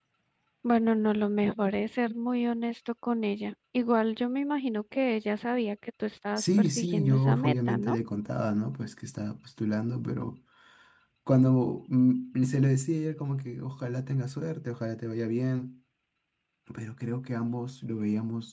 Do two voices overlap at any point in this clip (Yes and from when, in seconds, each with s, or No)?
Yes, from 6.4 s